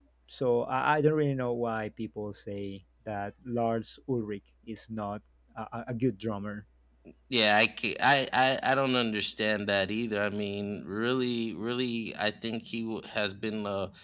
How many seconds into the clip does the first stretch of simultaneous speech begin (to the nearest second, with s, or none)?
none